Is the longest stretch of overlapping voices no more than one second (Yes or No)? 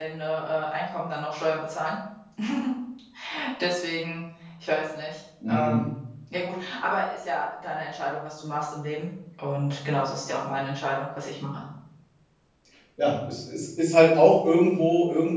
Yes